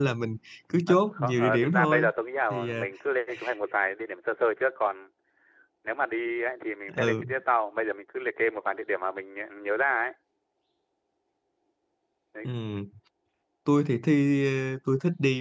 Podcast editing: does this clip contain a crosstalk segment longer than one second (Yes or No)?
Yes